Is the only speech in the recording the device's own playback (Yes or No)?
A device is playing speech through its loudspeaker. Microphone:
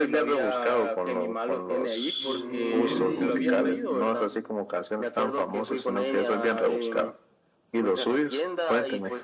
No